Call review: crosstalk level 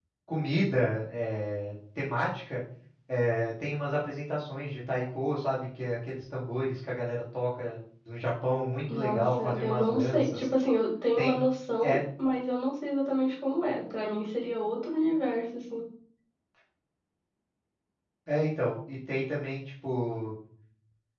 present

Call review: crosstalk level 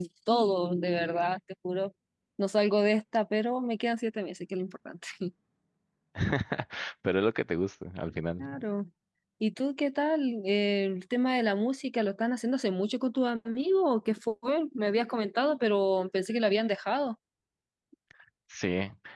none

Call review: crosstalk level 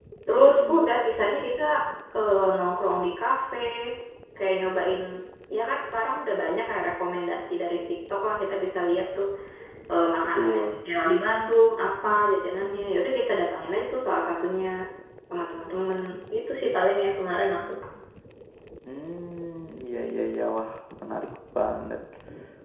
present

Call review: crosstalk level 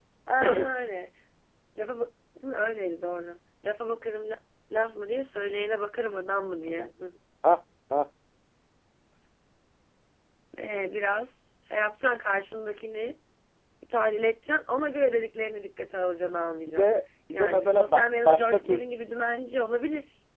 present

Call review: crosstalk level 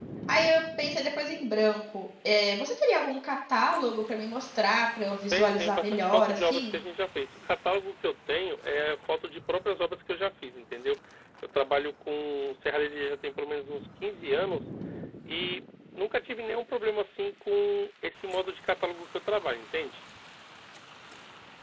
present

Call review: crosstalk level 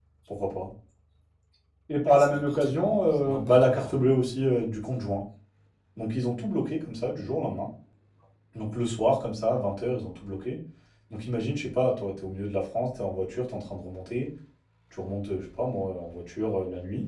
present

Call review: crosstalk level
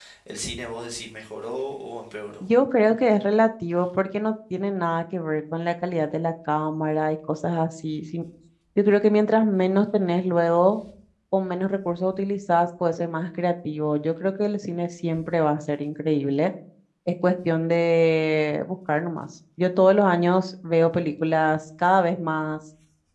none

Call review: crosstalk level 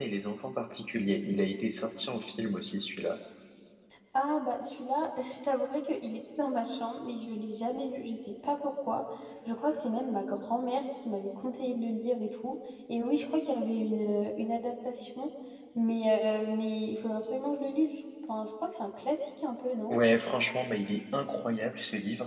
none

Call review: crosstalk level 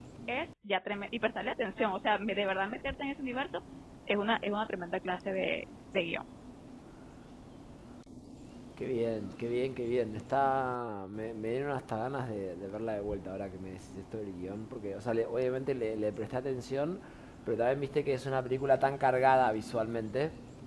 none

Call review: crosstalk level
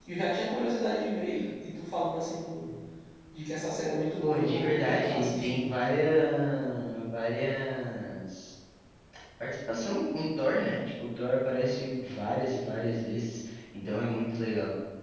present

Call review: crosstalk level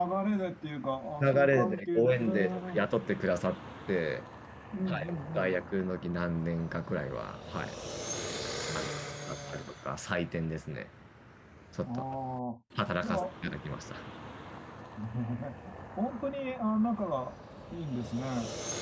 present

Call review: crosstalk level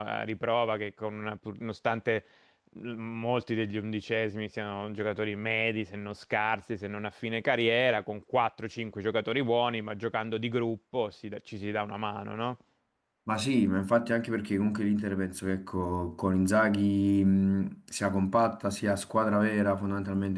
none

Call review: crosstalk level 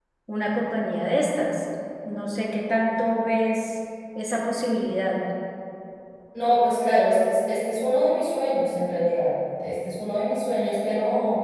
none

